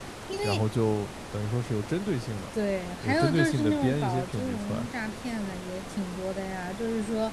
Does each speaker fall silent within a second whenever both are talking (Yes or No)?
No